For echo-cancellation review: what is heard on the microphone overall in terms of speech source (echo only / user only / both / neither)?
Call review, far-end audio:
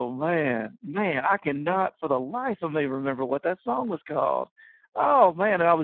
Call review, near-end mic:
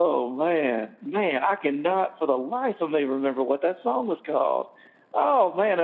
echo only